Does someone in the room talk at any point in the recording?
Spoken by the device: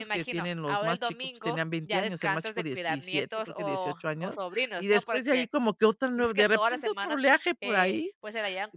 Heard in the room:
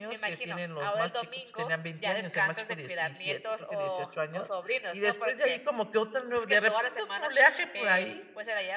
No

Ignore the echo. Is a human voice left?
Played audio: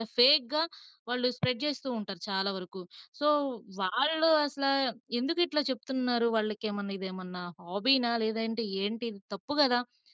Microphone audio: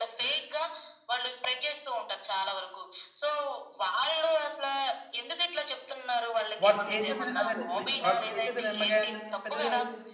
Yes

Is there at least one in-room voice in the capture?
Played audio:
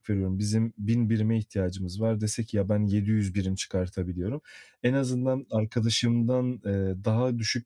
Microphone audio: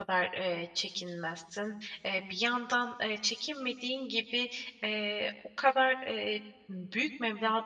Yes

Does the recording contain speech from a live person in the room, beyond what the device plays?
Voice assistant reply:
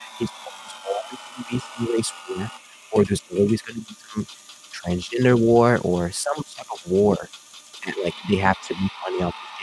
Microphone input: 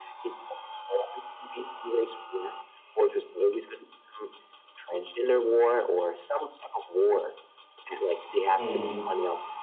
Yes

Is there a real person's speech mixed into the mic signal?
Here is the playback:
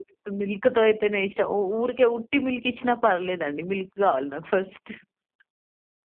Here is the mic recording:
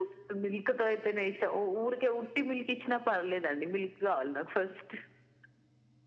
No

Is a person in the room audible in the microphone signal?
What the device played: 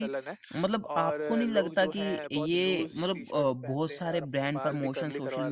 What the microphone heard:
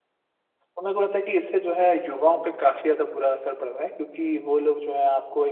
Yes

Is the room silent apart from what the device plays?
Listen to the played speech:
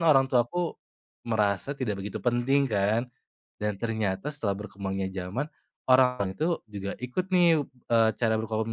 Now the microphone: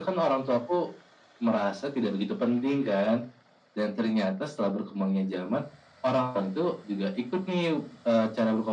Yes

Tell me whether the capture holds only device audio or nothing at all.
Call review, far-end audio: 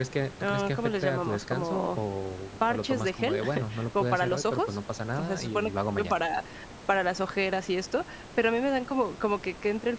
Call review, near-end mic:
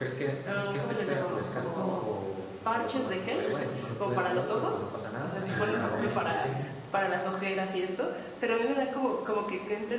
No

